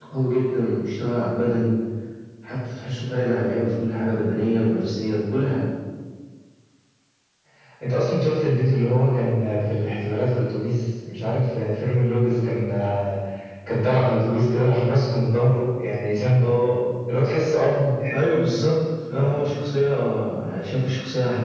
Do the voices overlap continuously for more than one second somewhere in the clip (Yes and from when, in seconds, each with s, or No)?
No